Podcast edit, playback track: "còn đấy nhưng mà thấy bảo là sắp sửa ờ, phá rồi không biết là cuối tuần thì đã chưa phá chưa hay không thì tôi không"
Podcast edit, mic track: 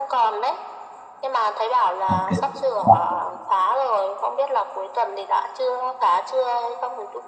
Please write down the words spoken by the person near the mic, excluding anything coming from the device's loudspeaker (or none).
ok Ủa,